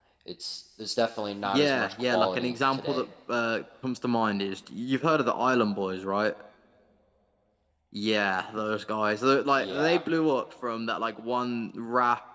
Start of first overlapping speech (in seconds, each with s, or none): 1.5 s